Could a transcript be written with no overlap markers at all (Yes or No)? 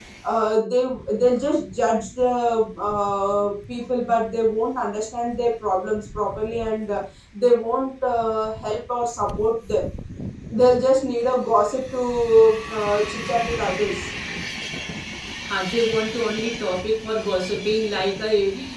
Yes